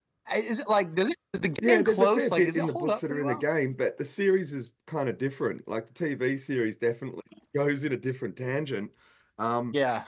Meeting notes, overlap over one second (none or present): present